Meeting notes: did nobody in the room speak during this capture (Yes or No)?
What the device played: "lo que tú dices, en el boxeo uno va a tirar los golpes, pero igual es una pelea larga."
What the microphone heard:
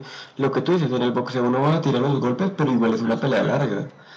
No